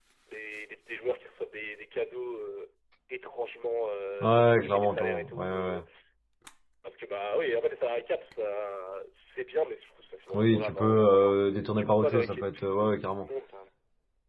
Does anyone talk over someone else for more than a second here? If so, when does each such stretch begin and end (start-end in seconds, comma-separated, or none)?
4.2-5.8, 10.3-13.3